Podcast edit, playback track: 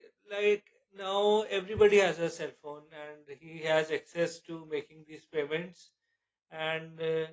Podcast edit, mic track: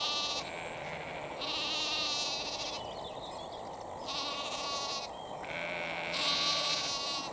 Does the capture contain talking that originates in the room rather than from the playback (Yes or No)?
No